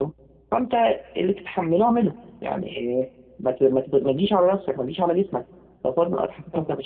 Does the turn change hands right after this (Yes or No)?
Yes